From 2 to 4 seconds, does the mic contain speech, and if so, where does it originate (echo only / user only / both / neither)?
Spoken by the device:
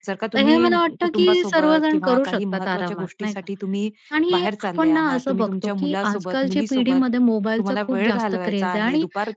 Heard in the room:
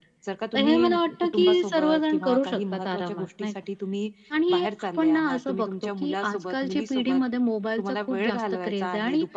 echo only